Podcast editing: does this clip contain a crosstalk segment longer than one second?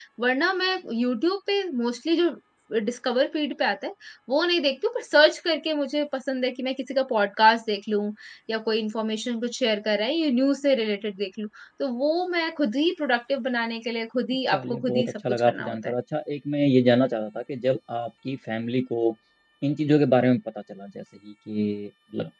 Yes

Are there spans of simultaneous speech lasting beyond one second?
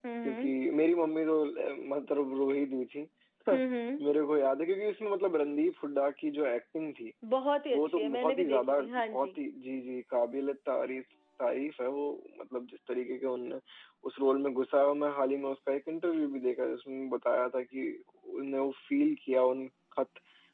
Yes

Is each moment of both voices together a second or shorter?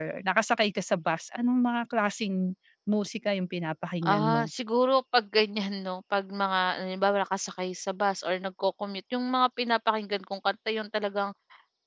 Yes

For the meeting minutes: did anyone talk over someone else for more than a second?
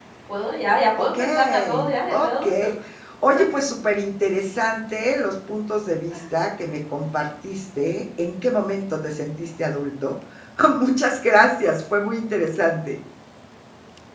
Yes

